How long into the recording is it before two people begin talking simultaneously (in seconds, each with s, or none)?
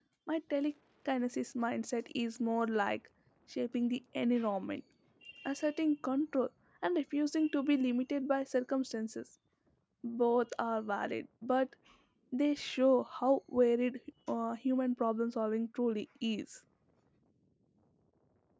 none